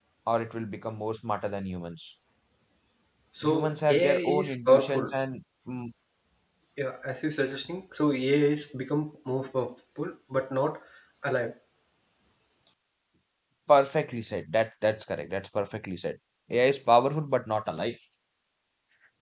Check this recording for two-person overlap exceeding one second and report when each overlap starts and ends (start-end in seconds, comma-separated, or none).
3.4-5.1